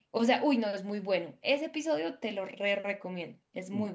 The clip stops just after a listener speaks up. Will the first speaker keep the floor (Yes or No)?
No